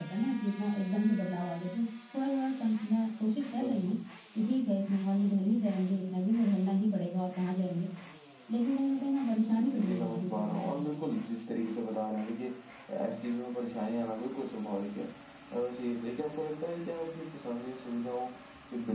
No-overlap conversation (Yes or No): No